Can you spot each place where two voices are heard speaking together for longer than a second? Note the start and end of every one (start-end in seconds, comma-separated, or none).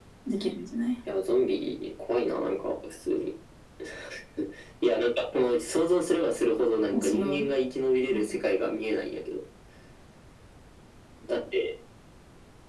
none